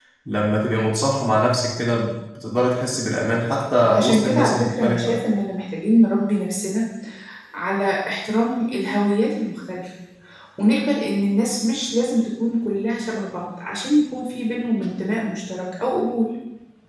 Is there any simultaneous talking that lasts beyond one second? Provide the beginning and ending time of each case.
3.9-5.1

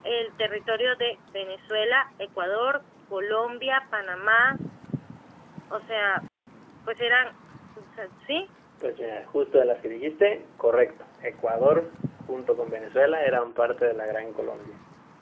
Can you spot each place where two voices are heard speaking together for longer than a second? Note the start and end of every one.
none

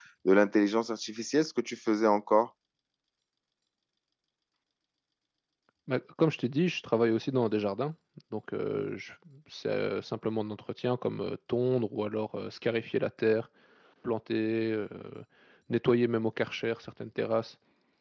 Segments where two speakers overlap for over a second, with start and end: none

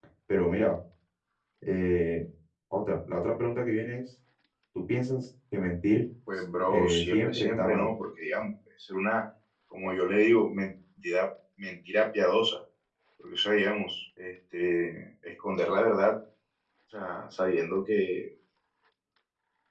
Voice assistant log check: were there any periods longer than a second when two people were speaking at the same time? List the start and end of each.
6.7-7.9

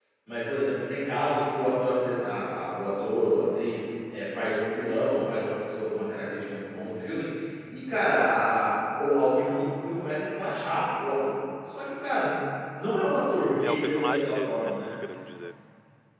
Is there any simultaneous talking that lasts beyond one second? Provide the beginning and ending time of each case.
13.6-14.9

